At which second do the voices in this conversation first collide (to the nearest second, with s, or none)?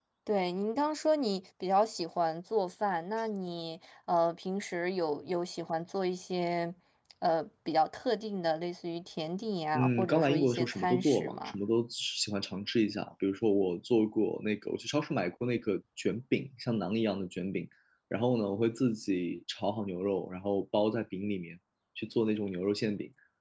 10 s